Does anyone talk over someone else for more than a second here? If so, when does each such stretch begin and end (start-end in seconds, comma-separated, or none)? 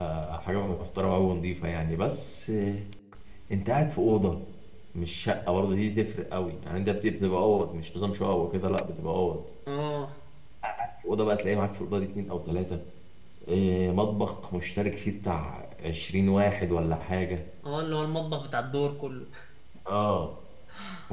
none